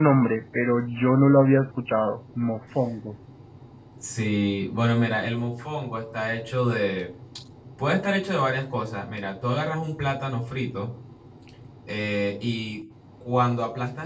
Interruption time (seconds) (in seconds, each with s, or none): none